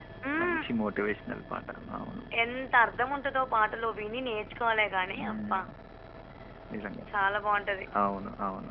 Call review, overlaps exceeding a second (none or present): none